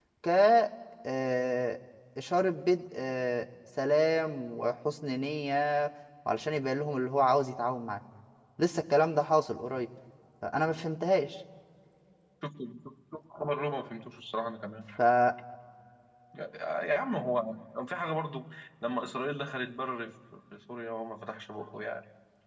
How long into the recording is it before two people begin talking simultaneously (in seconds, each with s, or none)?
none